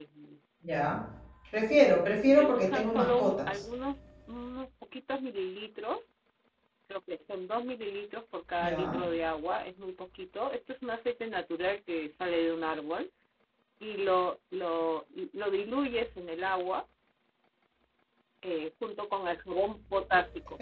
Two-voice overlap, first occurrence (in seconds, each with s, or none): 2.2 s